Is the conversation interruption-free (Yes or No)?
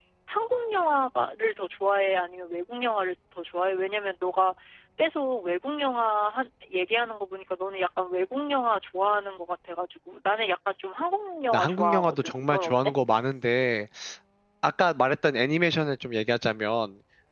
No